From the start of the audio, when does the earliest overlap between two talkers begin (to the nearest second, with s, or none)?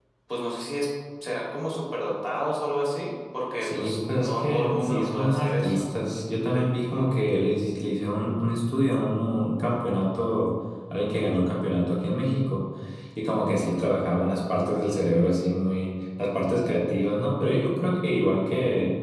4 s